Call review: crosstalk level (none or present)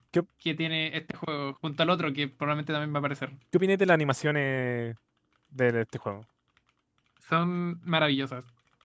none